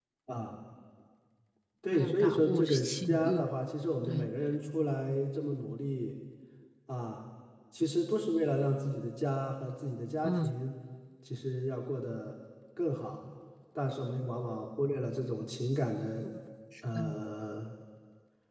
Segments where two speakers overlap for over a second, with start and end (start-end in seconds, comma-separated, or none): 1.9-3.5